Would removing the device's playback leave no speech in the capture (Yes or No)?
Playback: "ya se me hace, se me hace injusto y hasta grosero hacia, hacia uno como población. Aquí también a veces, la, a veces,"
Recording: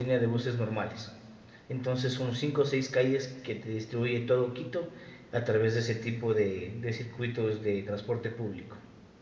No